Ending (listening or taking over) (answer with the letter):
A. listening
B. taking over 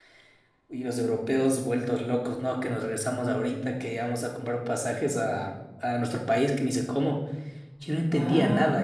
A